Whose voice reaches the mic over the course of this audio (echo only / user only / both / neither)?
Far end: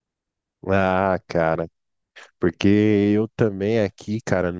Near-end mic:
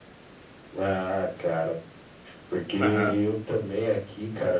both